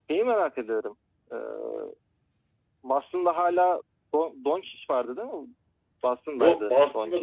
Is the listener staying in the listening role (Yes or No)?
No